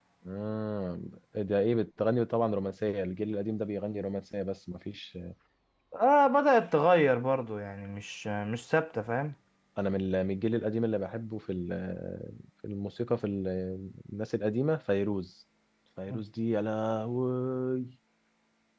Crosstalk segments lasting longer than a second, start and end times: none

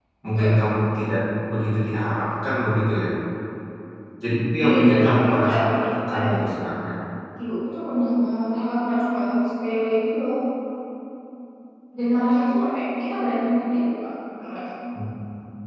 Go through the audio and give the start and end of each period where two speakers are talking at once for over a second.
4.6-6.3

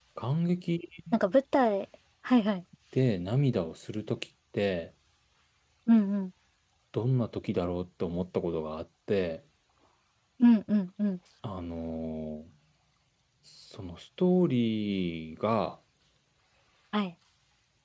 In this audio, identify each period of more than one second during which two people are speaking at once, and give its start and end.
none

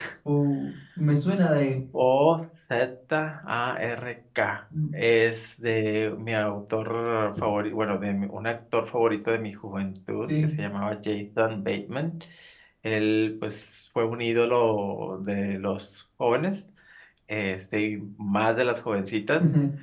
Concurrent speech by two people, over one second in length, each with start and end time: none

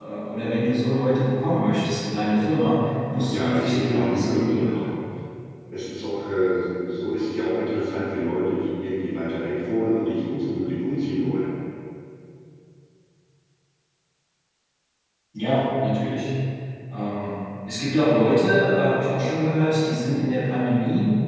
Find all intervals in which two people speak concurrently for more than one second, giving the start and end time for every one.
3.1-4.9

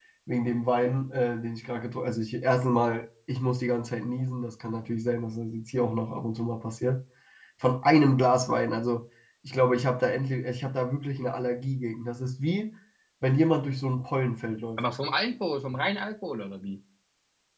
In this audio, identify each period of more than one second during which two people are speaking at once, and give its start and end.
none

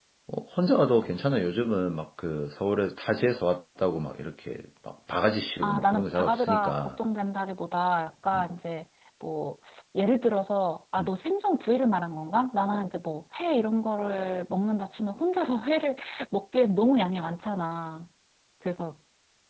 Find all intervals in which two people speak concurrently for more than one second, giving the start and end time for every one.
5.6-6.9

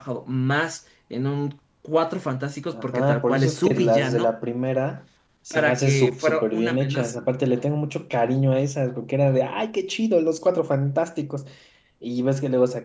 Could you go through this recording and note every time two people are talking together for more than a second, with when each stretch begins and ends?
2.7-4.3, 5.5-7.2

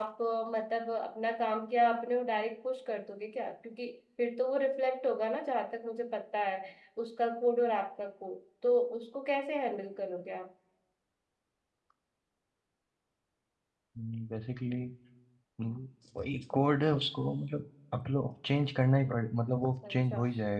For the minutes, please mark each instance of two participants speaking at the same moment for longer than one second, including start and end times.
none

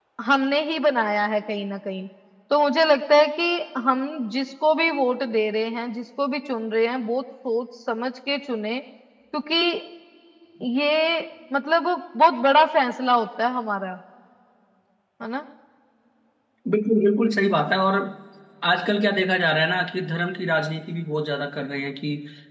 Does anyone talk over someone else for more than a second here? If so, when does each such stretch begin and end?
none

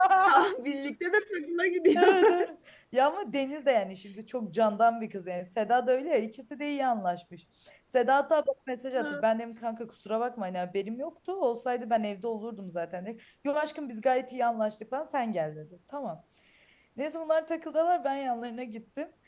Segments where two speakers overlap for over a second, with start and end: none

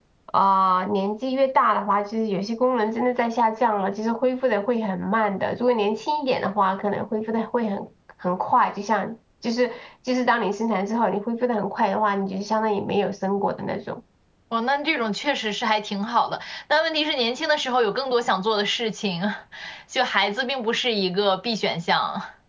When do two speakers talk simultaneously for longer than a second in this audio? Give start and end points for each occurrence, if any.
none

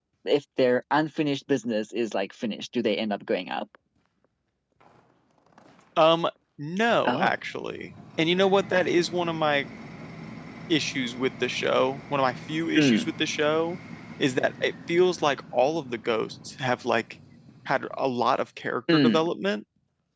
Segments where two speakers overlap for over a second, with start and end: none

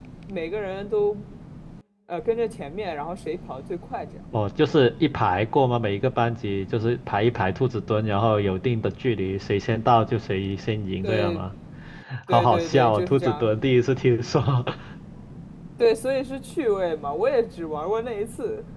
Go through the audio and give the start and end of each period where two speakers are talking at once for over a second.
12.3-13.5

